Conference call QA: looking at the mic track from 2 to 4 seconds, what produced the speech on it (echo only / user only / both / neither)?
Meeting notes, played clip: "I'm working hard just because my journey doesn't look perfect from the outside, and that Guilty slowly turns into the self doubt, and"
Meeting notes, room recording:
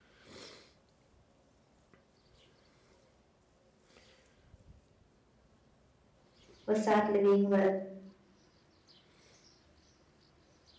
neither